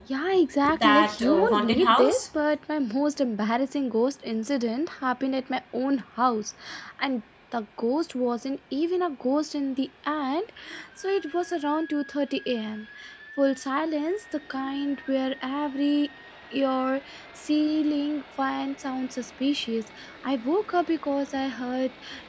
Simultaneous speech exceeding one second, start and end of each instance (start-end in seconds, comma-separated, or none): 0.7-2.2